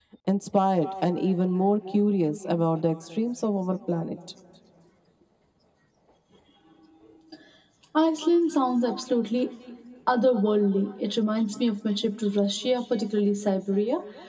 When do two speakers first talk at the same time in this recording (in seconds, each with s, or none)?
none